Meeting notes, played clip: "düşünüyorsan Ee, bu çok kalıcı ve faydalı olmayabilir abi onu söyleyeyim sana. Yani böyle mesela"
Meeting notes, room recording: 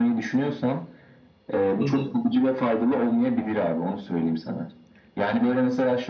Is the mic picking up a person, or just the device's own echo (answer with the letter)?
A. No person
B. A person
B